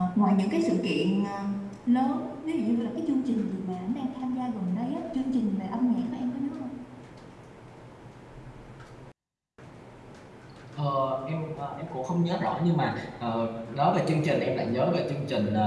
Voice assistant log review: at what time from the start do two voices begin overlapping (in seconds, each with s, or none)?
none